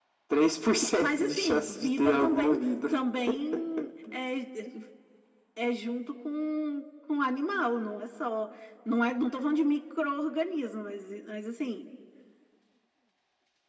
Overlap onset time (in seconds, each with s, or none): 1.0 s